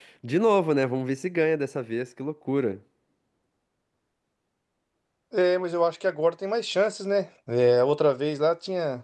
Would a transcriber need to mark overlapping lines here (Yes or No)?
No